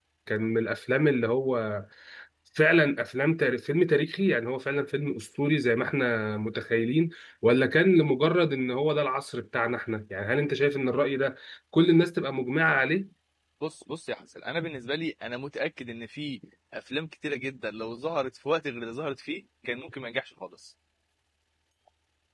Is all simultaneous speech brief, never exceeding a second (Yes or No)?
Yes